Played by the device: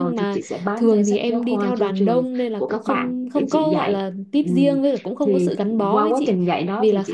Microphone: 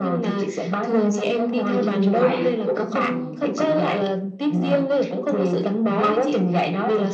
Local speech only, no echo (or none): Ừ, vậy đúng rồi.